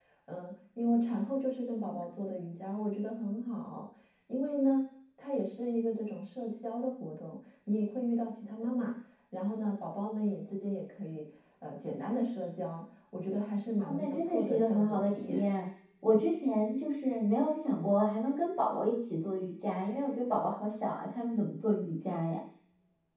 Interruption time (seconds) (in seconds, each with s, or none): 13.8 s